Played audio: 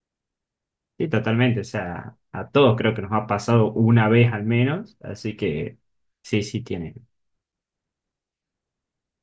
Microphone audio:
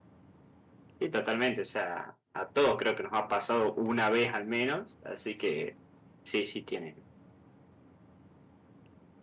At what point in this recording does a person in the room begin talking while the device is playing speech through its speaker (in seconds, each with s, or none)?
none